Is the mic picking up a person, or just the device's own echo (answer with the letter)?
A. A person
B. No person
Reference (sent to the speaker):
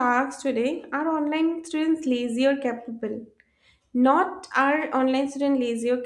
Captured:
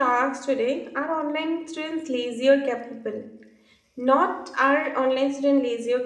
B